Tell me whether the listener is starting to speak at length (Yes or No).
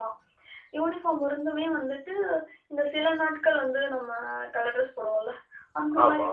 No